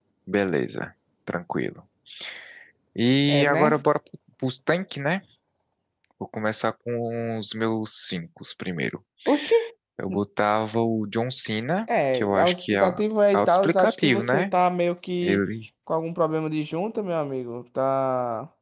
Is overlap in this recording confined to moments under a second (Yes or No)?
No